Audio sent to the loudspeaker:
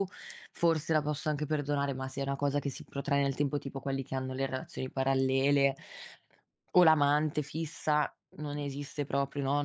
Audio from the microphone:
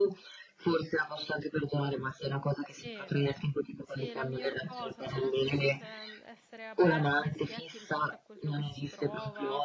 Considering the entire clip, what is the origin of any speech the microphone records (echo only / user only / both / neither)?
both